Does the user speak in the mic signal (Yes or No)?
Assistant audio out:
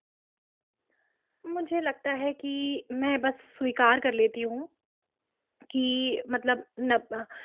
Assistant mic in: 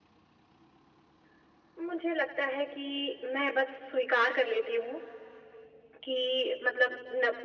No